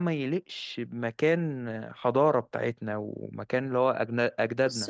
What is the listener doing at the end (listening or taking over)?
taking over